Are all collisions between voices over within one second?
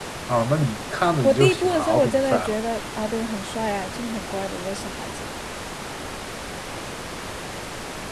No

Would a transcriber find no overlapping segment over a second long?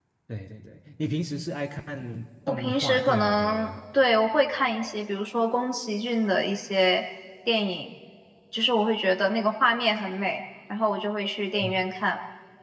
No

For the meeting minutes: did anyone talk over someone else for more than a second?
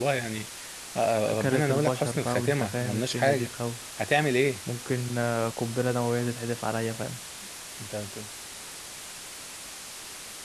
Yes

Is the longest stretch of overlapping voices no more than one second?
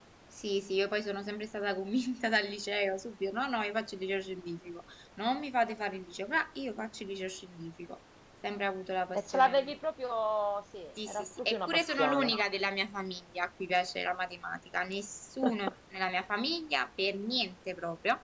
No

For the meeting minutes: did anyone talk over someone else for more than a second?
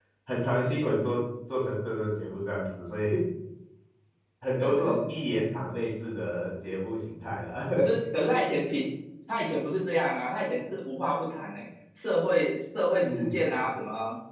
No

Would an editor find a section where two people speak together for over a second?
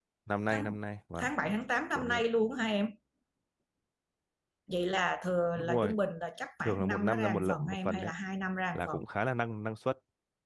Yes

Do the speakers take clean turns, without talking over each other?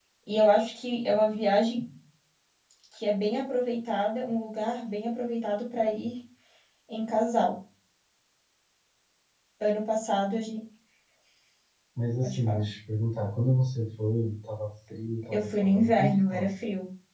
No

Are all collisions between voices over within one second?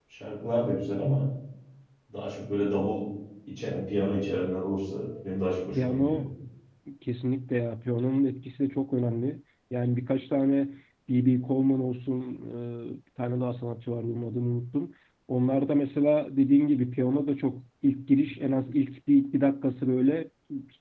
Yes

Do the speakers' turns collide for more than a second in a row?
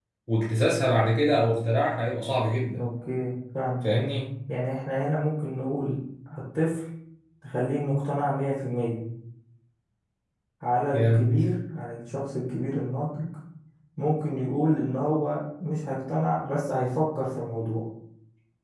No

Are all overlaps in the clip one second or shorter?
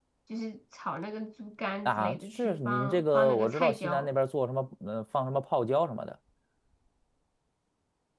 No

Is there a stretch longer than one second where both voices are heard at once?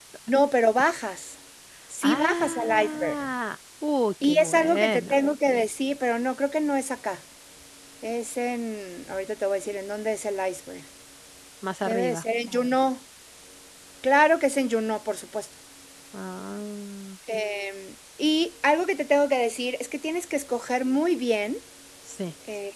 Yes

